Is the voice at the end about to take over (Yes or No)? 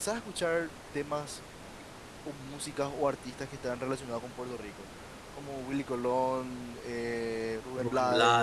Yes